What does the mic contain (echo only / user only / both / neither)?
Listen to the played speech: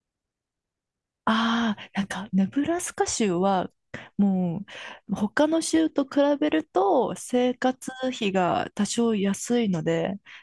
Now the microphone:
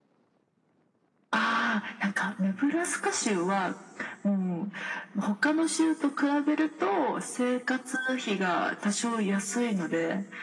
echo only